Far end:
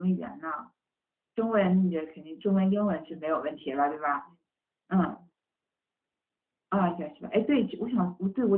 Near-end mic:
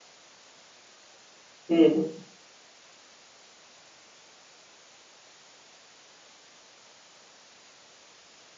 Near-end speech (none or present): present